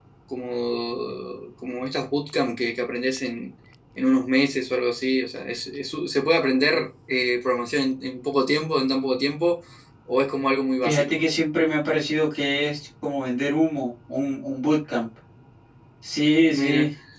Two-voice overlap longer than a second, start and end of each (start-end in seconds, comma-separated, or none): none